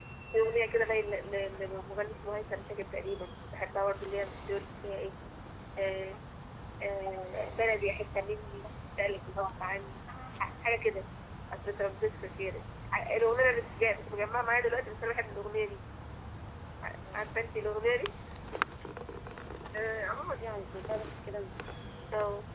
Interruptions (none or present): none